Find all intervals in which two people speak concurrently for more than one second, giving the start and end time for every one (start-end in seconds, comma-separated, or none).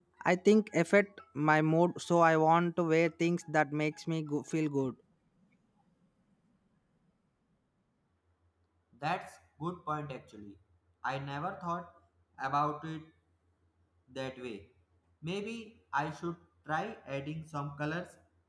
none